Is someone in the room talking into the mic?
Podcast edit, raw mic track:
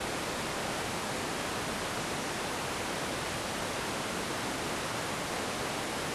No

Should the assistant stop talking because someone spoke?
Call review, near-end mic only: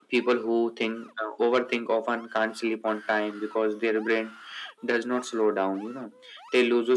No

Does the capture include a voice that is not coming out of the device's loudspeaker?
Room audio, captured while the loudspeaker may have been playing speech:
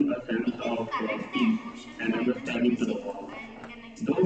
Yes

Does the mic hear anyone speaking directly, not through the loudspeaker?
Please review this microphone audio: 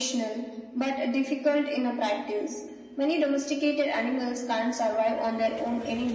No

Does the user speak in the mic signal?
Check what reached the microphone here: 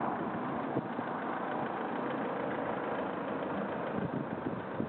No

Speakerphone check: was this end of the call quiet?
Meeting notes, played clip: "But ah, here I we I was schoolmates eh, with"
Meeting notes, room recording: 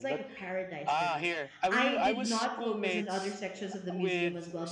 No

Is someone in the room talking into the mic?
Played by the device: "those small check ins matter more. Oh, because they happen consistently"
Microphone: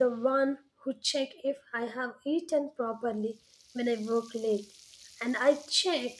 Yes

